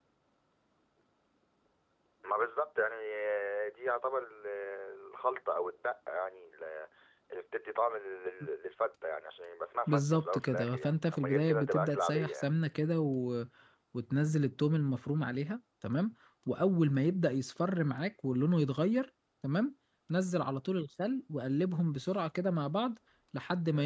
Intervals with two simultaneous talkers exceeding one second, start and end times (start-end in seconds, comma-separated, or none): 9.9-12.5